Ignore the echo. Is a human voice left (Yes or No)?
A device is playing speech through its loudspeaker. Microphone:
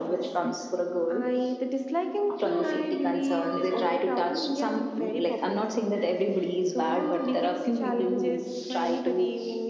No